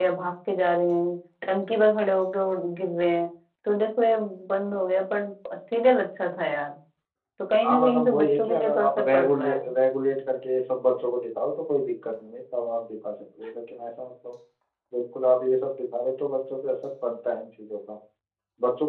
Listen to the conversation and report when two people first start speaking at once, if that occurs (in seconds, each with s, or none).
7.6 s